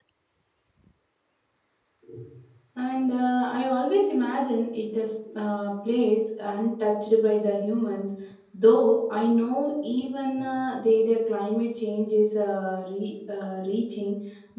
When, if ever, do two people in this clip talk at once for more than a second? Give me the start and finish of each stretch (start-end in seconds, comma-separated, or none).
none